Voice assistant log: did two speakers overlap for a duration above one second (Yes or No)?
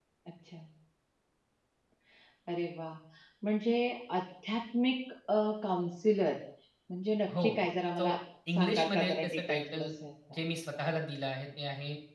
Yes